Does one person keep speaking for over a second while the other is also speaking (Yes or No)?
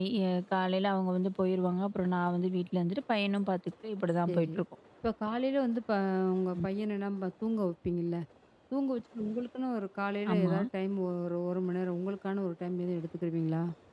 No